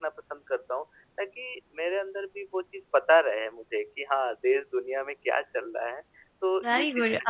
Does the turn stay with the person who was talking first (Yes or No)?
No